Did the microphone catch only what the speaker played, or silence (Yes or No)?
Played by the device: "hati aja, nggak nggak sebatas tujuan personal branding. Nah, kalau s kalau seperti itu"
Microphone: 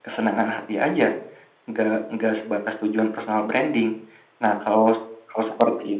Yes